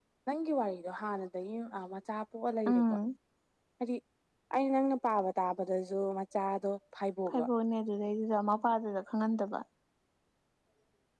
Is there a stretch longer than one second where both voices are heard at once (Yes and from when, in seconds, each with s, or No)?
No